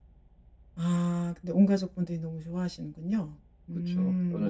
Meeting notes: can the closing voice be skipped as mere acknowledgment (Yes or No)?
No